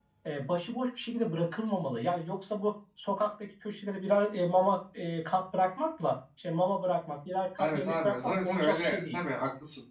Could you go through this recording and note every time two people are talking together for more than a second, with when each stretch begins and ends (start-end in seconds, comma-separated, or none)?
7.6-9.2